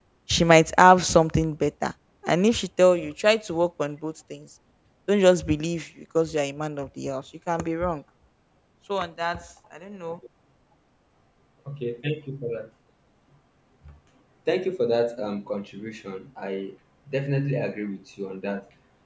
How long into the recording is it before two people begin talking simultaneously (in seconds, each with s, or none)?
none